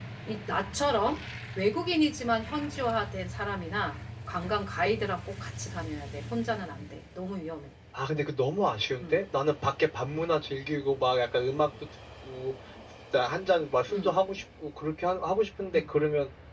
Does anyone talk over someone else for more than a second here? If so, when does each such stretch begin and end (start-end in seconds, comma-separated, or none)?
none